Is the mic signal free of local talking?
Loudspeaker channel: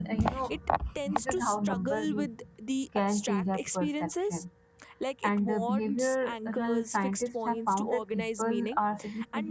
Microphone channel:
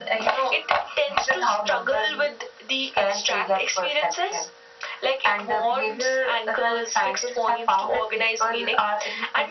Yes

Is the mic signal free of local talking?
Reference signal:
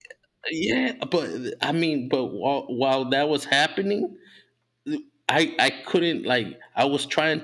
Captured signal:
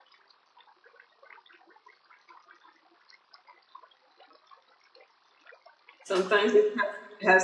No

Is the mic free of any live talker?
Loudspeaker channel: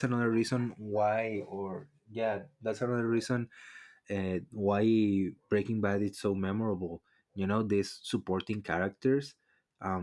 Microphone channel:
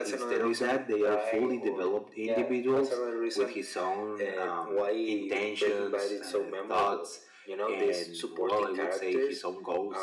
No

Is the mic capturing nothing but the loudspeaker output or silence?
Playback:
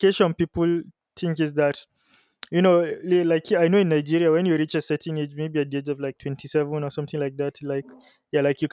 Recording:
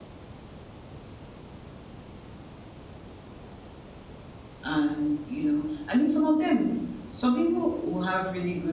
No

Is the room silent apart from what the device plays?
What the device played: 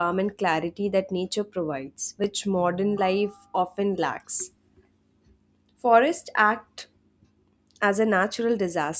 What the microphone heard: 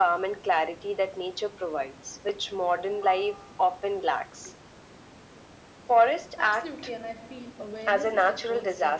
No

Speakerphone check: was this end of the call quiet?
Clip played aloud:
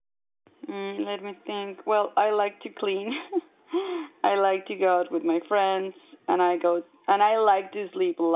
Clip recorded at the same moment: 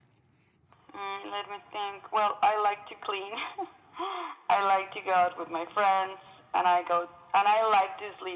Yes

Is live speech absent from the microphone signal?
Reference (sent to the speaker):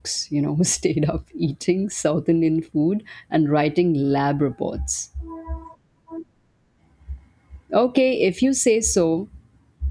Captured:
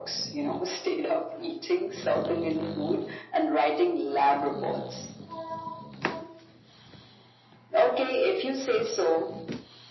Yes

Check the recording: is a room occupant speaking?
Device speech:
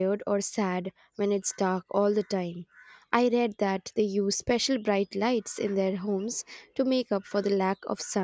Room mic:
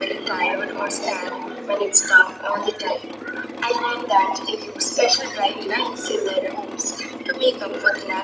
No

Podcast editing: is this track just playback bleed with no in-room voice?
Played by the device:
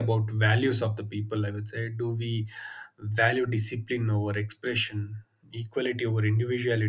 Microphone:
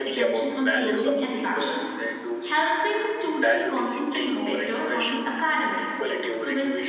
No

